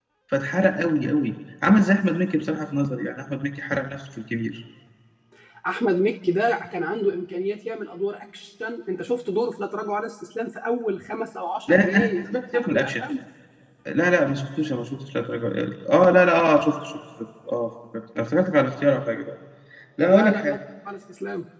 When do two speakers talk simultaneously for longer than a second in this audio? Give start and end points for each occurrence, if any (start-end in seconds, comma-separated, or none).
11.7-13.0